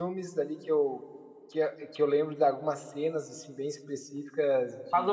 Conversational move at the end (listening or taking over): taking over